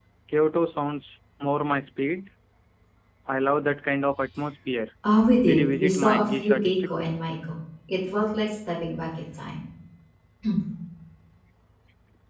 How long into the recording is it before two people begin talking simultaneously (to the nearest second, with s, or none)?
5 s